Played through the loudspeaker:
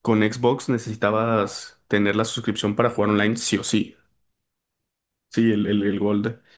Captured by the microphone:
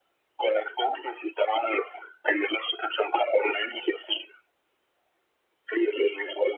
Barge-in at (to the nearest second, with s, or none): none